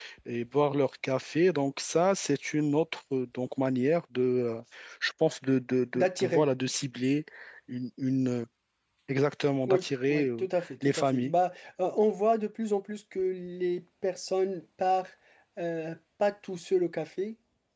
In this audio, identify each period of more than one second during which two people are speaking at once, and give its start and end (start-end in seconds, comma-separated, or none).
9.7-11.3